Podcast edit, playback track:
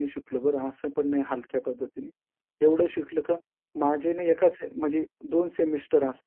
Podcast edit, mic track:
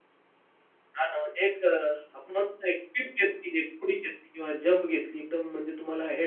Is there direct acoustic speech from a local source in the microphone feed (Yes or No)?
Yes